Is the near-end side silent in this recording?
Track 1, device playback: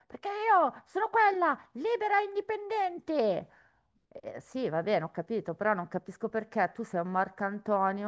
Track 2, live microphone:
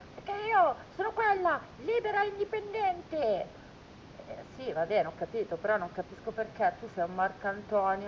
Yes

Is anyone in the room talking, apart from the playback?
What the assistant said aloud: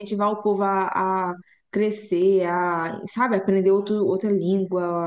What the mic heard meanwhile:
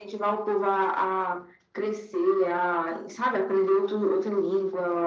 No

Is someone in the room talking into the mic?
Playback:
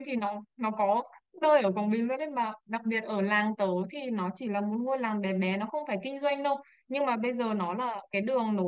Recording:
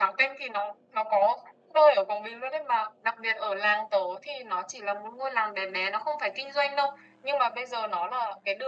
No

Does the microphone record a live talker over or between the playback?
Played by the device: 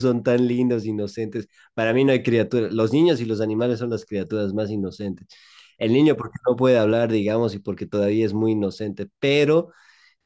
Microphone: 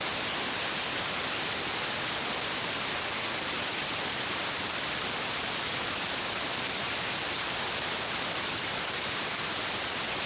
No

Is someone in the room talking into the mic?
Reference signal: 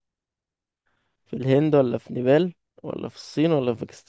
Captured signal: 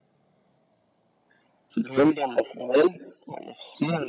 No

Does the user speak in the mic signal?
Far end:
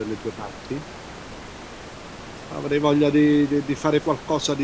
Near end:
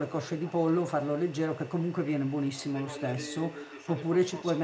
Yes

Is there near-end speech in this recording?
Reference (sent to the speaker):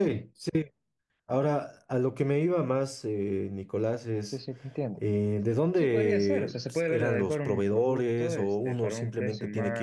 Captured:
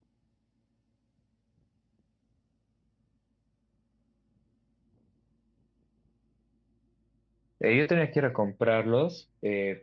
Yes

